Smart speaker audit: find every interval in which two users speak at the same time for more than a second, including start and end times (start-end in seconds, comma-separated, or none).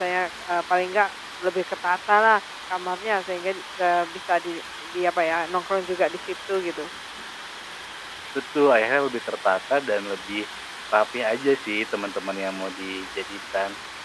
none